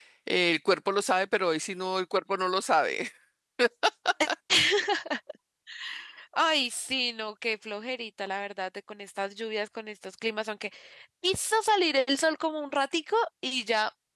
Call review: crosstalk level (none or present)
none